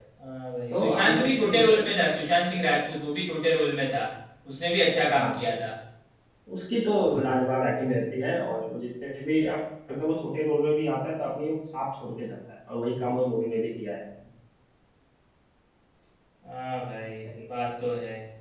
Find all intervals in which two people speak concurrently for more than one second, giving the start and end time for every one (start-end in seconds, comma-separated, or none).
0.7-1.9